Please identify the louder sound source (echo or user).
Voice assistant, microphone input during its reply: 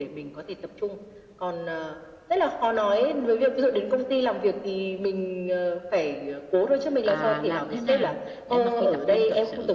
echo